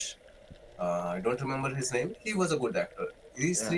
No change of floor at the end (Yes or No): No